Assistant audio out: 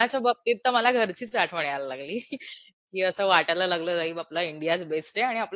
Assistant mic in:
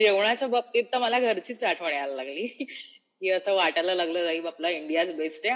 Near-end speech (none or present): none